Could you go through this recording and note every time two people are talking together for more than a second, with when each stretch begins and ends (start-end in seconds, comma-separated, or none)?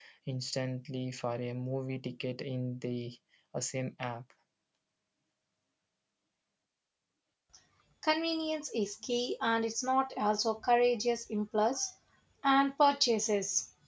none